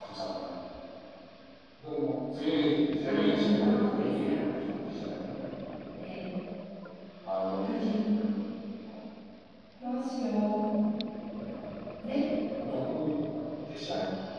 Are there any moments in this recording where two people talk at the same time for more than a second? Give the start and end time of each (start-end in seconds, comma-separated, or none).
3.1-4.3